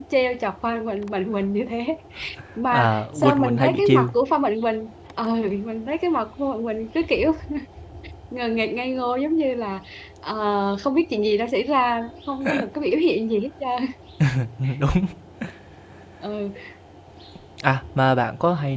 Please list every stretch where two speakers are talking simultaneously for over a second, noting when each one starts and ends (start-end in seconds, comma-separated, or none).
2.7-4.1